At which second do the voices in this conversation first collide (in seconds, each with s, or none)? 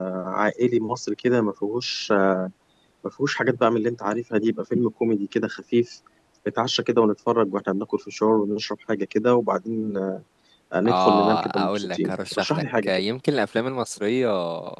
10.8 s